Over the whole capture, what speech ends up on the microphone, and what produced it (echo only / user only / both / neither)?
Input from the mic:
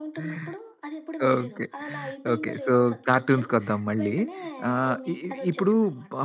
both